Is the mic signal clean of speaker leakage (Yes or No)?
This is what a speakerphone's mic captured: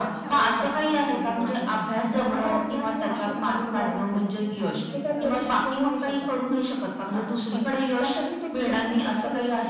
No